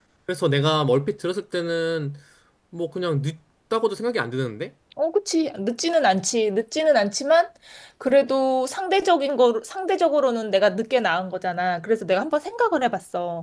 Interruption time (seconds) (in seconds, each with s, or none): none